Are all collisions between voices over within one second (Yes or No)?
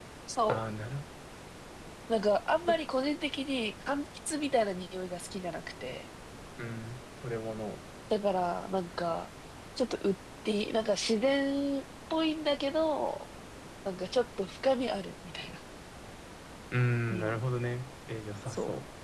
Yes